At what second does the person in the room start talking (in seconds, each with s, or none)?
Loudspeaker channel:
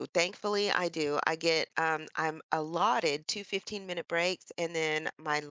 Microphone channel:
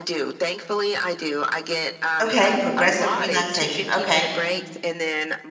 2.2 s